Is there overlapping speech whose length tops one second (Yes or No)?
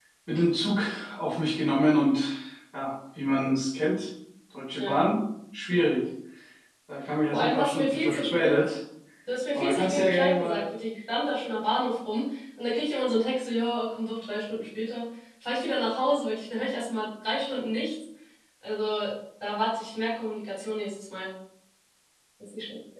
Yes